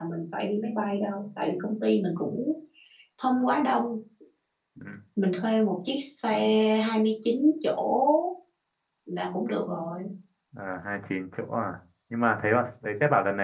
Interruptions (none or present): none